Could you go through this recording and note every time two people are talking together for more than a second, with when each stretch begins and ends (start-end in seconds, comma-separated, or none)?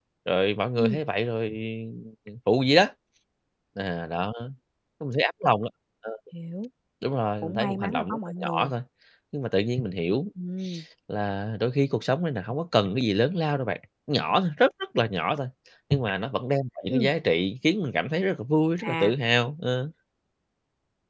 7.4-8.7